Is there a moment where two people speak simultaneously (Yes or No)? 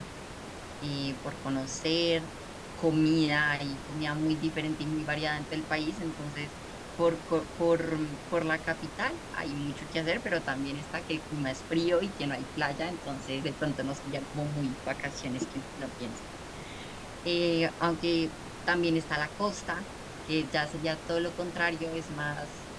No